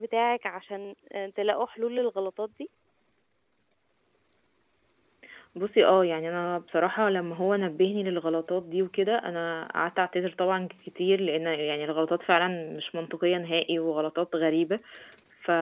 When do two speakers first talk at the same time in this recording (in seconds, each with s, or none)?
none